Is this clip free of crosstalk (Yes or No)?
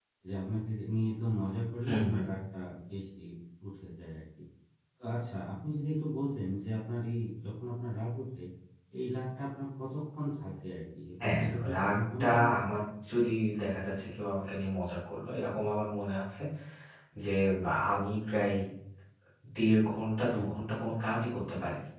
No